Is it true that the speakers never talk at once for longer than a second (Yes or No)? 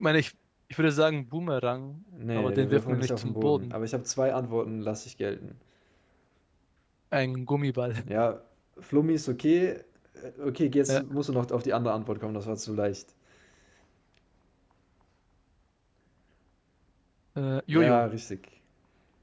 No